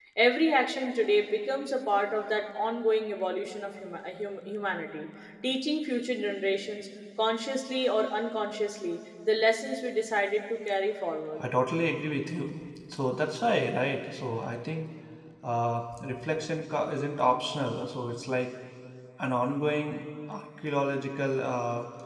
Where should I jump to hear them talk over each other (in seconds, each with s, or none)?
none